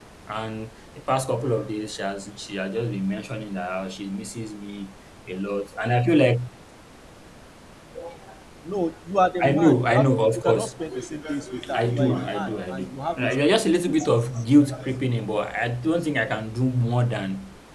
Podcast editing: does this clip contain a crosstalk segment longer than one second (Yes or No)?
Yes